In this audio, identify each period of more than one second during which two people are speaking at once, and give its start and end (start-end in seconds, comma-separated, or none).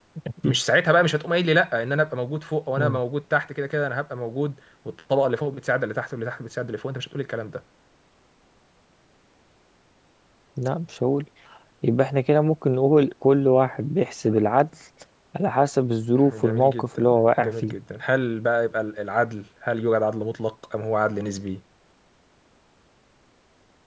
16.3-17.7